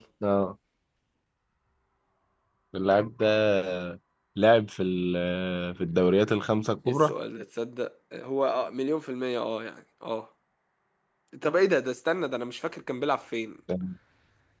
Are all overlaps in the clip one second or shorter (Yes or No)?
Yes